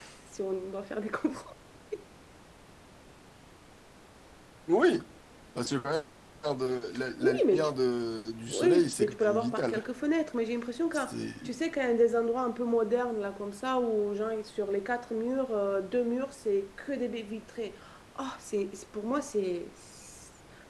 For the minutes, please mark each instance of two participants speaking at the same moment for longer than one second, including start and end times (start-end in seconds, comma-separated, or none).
8.5-9.8